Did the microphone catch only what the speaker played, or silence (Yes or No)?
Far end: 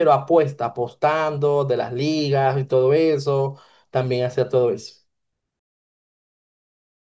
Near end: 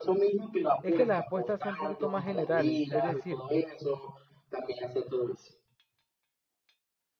No